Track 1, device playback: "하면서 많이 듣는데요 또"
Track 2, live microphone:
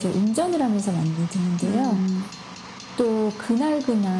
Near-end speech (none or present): present